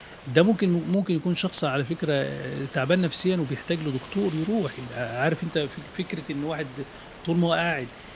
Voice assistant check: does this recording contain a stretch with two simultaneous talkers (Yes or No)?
No